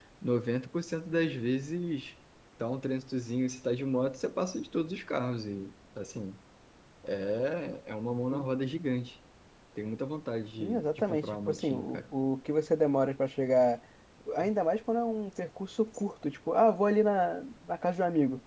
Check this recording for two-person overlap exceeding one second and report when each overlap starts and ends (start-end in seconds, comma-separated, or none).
10.6-12.0